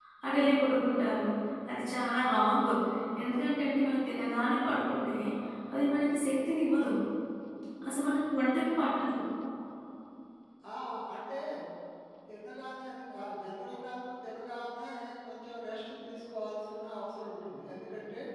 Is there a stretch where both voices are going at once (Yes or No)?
No